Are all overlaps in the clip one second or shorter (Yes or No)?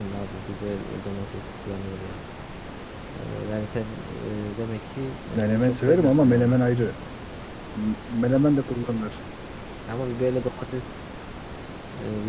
No